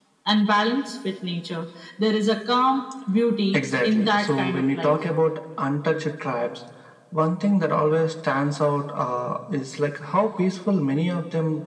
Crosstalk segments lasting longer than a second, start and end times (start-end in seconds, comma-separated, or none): 3.5-5.0